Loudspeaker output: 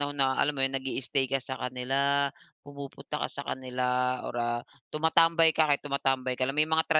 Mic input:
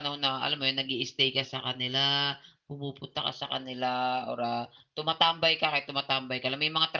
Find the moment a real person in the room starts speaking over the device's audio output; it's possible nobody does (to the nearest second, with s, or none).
none